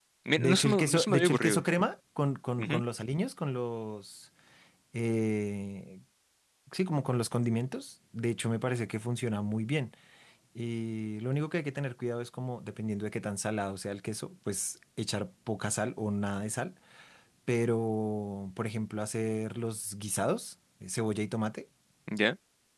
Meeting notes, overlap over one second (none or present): present